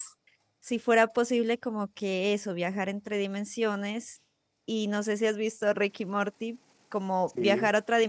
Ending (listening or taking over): listening